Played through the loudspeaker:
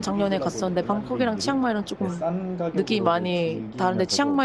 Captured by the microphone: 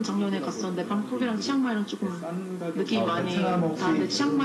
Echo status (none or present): present